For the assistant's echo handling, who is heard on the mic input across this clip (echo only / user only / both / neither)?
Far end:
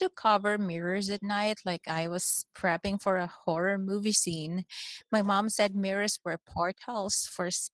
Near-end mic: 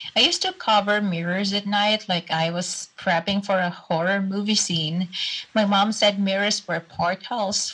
echo only